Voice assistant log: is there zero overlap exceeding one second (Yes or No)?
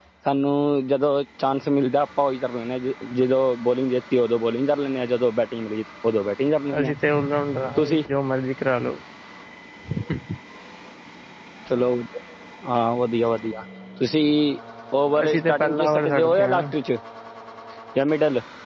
No